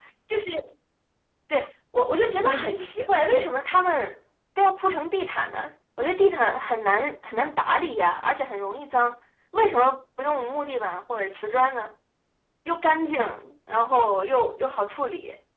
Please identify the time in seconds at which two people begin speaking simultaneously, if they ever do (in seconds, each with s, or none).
2.2 s